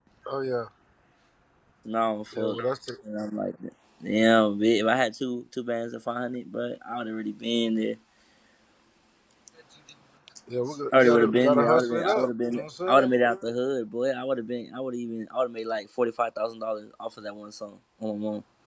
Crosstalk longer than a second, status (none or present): present